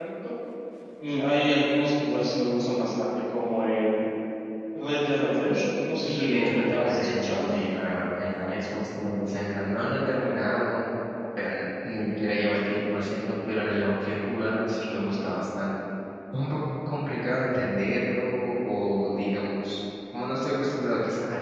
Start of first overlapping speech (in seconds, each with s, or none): 6.0 s